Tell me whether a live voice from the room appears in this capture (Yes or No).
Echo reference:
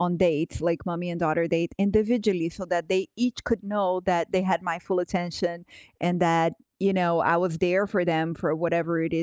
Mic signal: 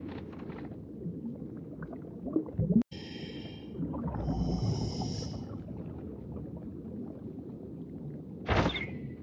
No